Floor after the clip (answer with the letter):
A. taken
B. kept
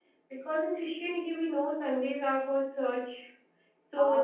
B